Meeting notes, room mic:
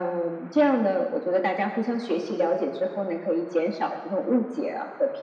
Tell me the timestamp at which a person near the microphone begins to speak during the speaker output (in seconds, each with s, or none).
none